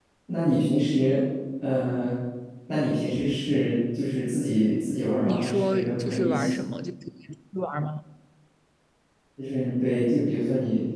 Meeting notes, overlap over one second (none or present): present